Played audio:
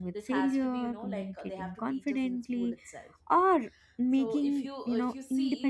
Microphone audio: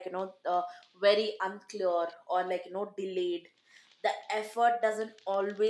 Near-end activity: present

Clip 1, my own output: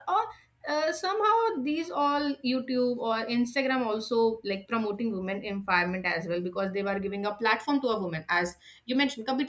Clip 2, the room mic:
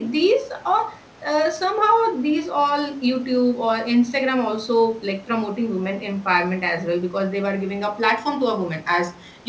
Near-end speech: none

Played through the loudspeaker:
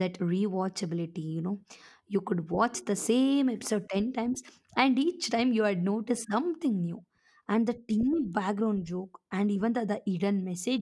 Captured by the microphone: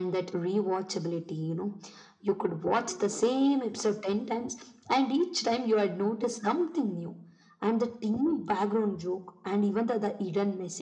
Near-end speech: none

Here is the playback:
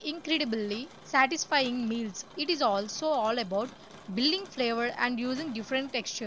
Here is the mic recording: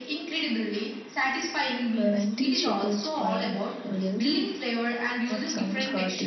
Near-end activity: present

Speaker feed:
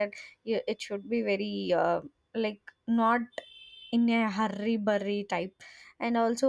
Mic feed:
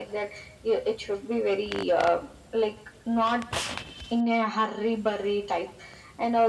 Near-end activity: none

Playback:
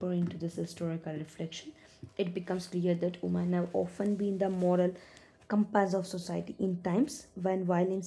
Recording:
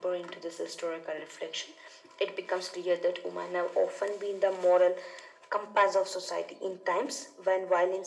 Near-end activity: none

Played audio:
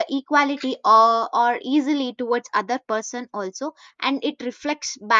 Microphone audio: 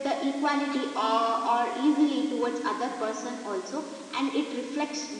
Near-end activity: none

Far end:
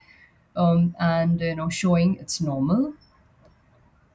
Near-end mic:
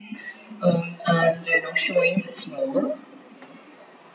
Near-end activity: none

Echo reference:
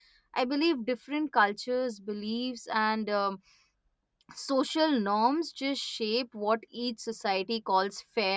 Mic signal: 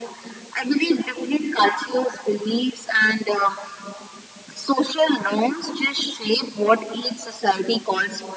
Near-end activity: none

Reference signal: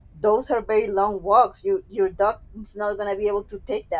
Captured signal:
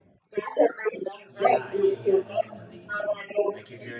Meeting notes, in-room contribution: present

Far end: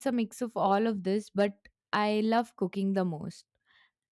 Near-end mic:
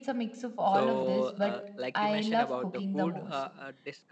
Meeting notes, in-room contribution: present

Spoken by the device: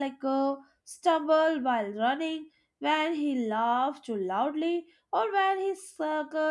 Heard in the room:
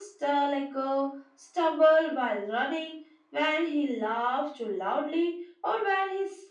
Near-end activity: none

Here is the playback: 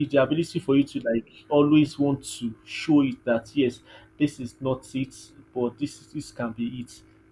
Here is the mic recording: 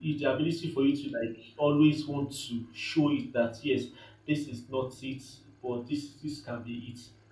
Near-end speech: none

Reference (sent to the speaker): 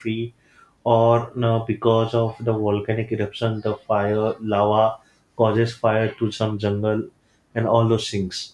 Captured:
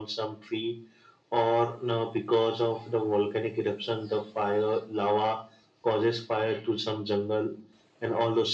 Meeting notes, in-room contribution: none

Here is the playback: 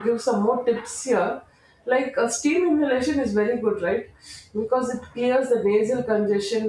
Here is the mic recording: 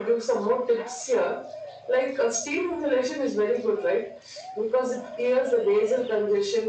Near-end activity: none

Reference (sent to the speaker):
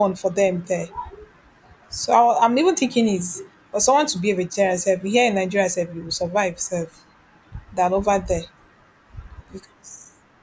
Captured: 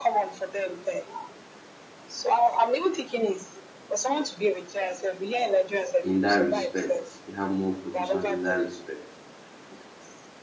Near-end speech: present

